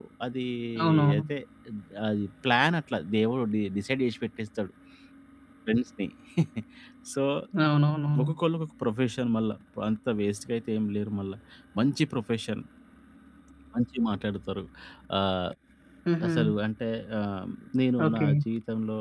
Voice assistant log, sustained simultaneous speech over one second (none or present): none